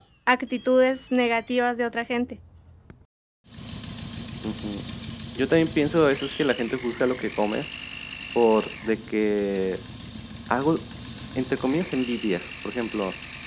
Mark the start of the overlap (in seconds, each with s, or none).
none